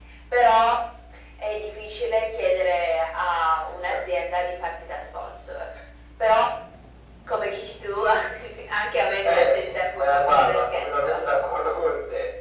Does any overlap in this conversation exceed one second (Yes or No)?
Yes